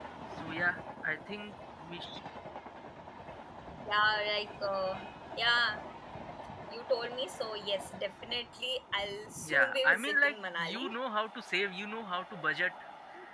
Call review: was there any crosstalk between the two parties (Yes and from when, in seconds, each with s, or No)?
Yes, from 9.4 s